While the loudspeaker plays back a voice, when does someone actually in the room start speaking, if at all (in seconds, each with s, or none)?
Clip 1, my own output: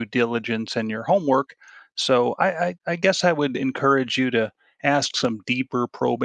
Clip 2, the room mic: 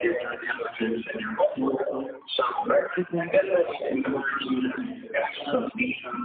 3.0 s